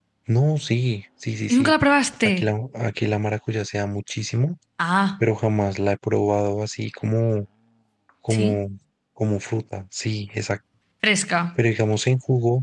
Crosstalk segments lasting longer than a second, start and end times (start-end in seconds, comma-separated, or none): none